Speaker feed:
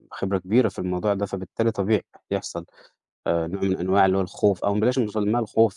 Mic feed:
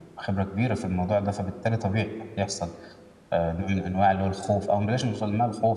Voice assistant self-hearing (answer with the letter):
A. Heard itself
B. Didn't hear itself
A